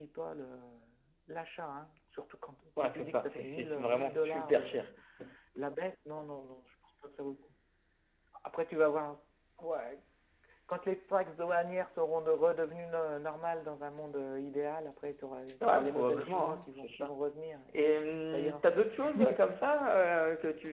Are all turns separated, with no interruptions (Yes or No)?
No